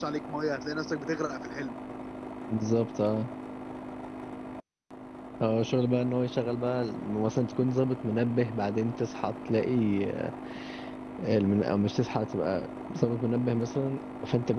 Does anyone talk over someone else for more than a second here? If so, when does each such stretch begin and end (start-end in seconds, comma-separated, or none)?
none